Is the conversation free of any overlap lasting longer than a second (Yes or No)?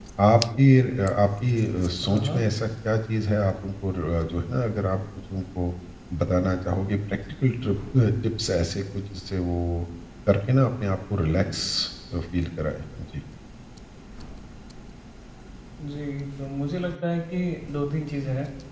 Yes